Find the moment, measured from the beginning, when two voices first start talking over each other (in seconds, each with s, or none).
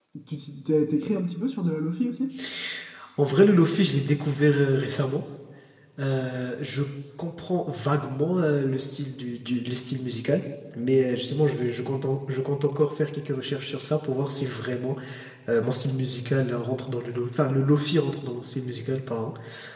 none